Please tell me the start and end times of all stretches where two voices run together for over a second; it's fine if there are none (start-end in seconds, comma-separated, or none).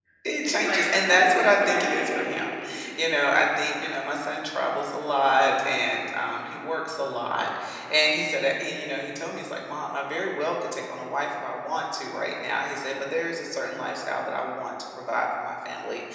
0.6-2.0